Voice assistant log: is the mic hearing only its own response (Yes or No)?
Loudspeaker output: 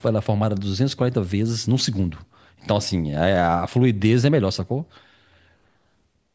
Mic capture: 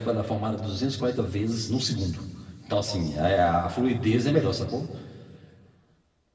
Yes